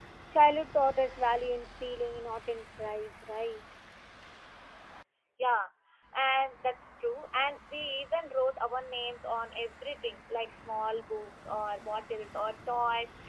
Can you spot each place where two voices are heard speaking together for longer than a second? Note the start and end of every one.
none

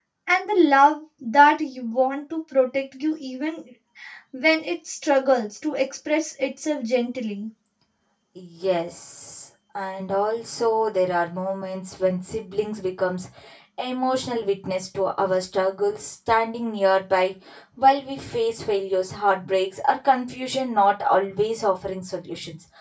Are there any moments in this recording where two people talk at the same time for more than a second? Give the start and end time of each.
none

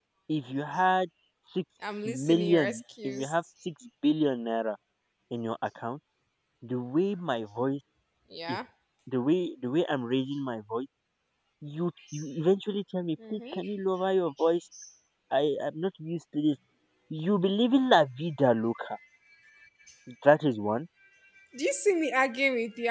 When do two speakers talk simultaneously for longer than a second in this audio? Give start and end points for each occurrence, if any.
2.0-3.3

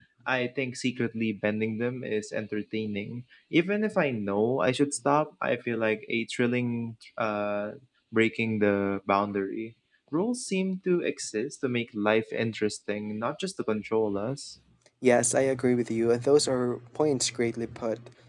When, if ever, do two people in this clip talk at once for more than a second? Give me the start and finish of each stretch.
none

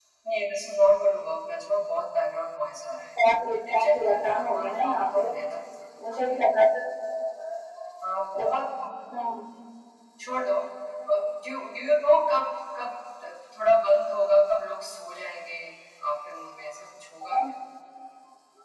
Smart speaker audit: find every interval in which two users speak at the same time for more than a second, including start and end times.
3.2-5.3

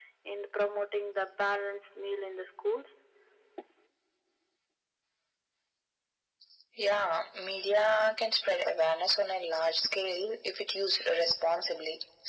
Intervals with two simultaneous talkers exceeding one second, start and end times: none

